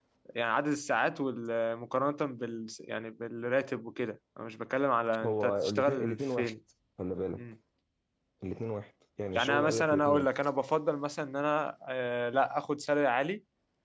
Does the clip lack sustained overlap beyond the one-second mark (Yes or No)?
No